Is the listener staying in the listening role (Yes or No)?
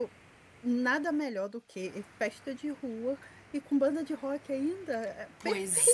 No